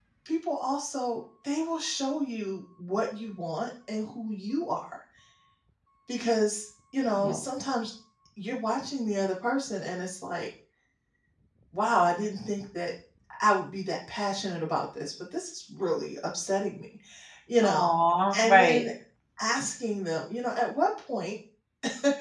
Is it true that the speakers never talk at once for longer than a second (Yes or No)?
Yes